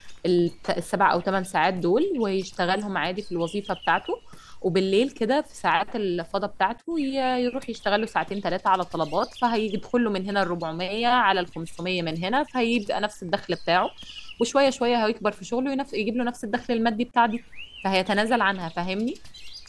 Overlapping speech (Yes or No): No